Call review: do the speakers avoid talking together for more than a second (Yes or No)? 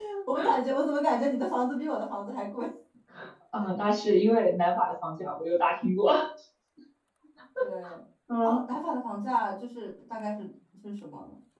Yes